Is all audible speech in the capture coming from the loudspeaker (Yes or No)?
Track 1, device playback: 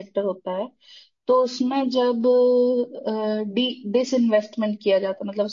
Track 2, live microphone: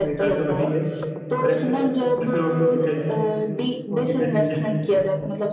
No